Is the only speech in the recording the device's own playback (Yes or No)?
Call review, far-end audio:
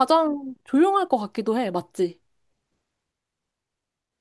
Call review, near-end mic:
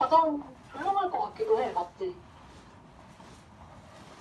Yes